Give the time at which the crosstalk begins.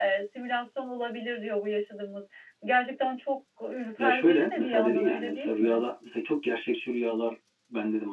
4 s

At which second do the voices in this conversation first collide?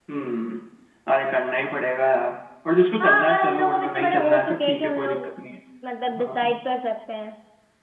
3 s

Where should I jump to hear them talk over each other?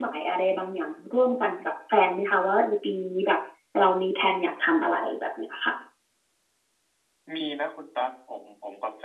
none

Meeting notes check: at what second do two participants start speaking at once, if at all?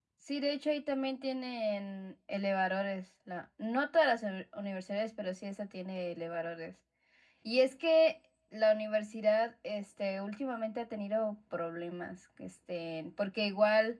none

